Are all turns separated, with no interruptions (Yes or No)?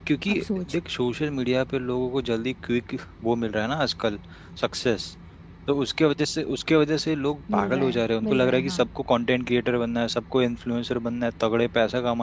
No